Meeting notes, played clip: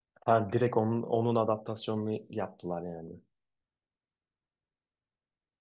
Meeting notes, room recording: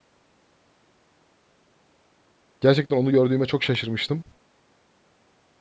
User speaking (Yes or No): Yes